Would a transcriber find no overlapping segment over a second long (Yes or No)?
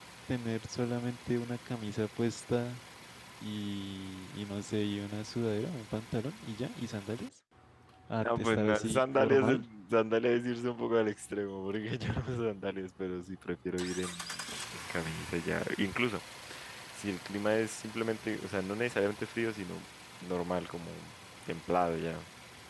No